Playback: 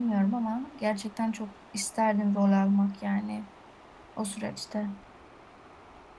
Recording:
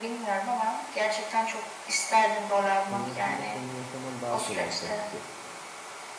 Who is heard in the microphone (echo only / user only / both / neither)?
both